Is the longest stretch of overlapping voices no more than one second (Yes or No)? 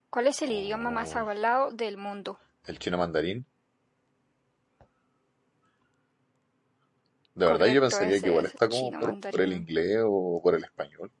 No